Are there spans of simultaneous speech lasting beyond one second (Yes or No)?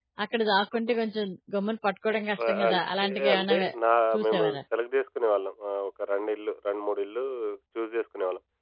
Yes